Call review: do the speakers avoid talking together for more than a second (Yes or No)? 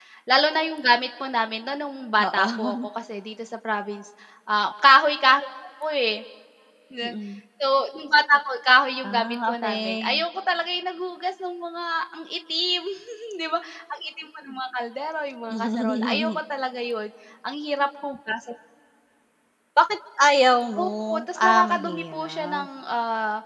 No